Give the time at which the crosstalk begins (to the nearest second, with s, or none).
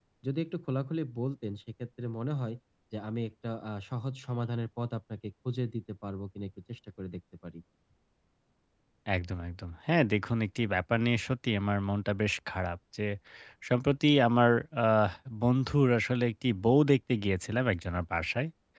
none